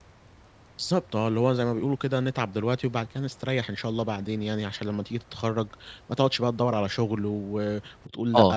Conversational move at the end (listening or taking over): taking over